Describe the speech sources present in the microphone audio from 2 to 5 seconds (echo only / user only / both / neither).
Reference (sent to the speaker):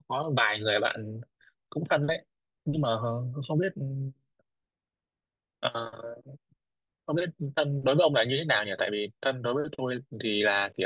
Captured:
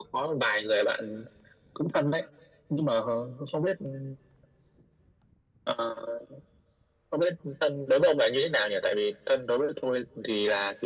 echo only